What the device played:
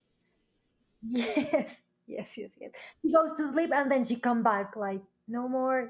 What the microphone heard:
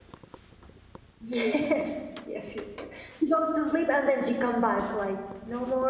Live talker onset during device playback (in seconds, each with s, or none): none